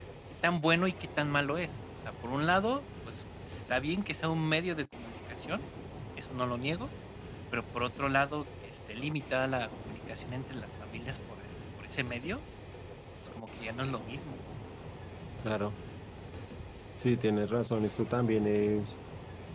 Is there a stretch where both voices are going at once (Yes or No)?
No